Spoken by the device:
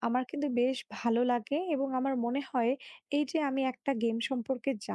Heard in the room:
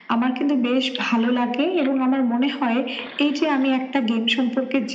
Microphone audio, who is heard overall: echo only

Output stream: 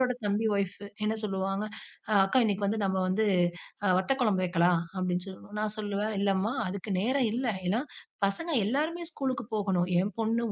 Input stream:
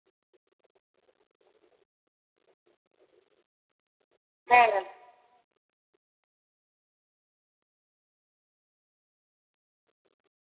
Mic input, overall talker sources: user only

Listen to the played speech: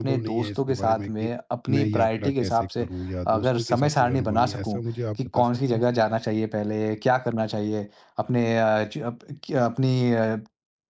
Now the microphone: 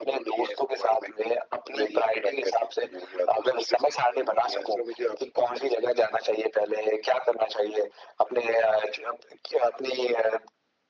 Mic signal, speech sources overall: echo only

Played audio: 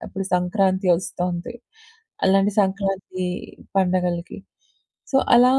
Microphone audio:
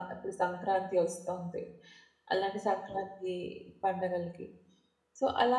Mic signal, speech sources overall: echo only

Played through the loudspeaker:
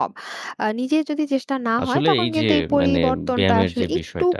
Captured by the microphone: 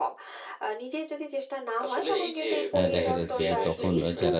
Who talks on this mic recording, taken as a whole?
both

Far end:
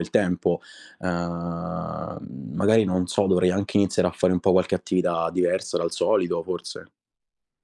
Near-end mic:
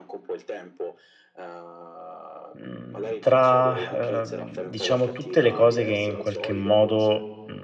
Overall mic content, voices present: both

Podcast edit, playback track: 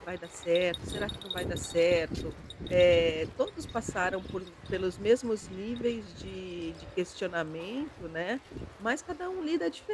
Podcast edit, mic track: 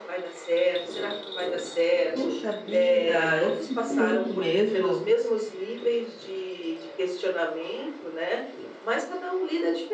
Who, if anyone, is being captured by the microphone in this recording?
both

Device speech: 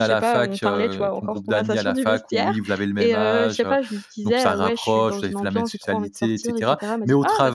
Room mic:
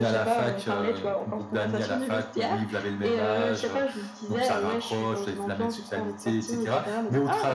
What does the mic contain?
echo only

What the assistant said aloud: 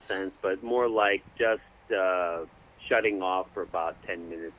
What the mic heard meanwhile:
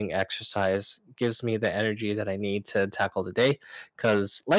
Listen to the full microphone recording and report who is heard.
user only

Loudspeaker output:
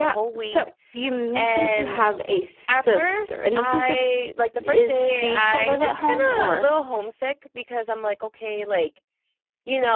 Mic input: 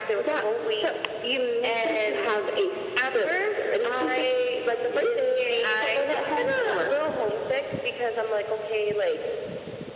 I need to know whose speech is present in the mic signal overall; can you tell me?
echo only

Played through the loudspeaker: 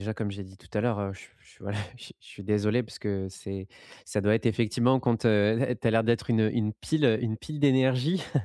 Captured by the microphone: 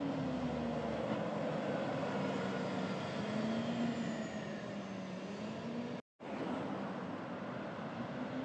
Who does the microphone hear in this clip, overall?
neither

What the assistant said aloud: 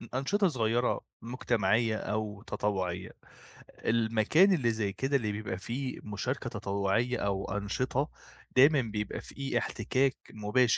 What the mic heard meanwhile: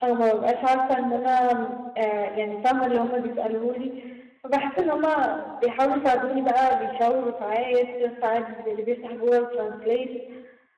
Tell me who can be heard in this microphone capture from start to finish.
user only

